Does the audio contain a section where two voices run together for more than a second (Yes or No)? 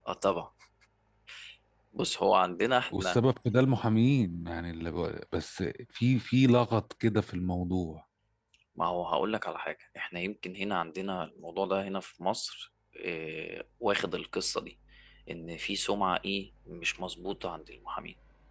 No